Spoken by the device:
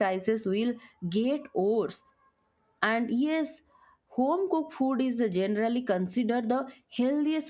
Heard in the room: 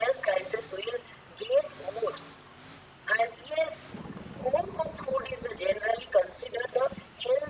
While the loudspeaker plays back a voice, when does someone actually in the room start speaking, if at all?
none

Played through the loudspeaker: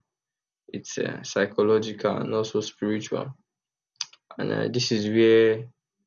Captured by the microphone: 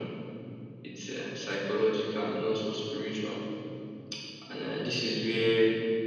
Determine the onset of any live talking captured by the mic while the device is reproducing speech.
none

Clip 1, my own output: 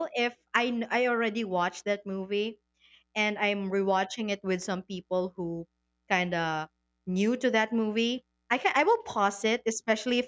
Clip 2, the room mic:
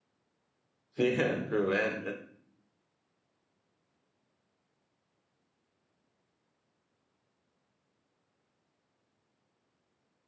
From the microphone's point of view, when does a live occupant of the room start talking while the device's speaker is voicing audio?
0.9 s

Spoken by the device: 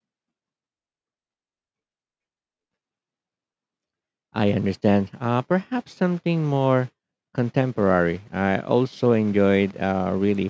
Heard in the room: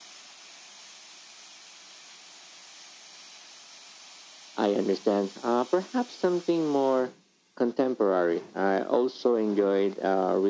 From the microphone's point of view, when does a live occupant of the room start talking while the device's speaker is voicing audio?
none

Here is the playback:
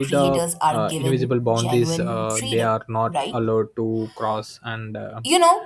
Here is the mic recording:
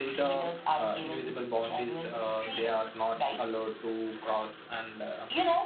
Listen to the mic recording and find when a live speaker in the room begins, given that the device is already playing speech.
none

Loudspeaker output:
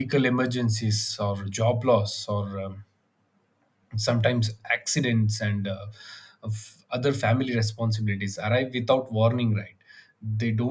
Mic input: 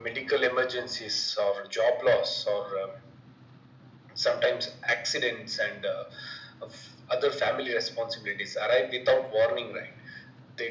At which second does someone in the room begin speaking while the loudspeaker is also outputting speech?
none

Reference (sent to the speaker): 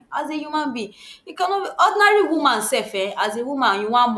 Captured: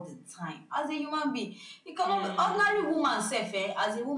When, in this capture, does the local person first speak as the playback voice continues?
2.0 s

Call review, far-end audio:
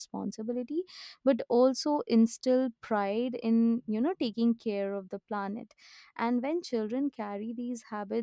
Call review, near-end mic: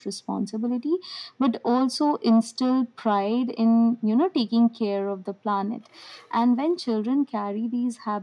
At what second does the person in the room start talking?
none

